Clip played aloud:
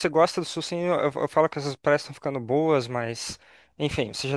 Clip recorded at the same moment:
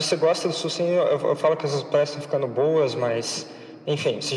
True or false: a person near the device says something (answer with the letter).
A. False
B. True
A